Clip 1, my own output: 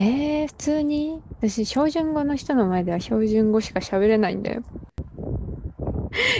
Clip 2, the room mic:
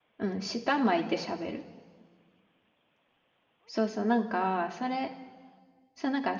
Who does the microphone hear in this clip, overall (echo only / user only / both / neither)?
user only